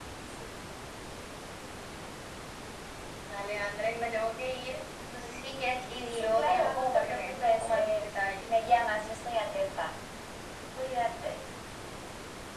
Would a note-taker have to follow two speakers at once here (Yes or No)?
Yes